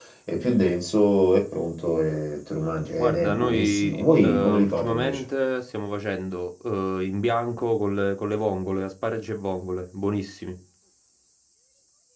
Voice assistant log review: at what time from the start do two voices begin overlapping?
3.0 s

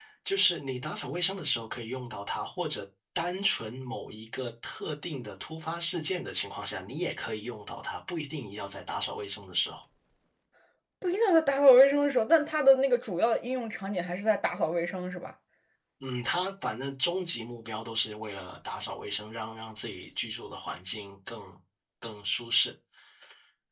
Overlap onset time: none

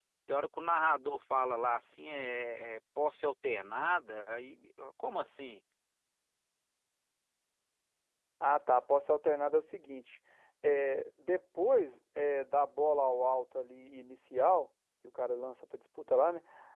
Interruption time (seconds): none

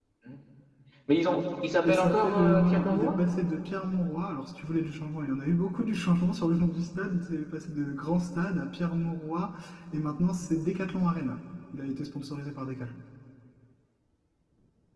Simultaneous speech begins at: 1.8 s

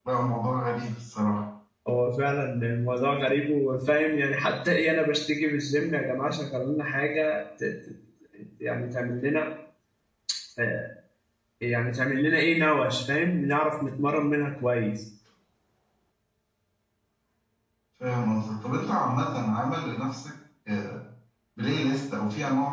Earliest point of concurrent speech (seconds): none

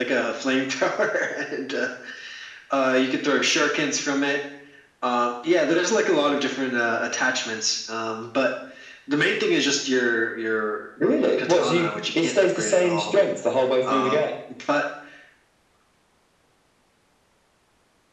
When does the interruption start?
11.4 s

